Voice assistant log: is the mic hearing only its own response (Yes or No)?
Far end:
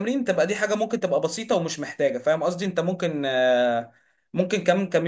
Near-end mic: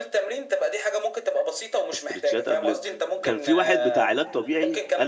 No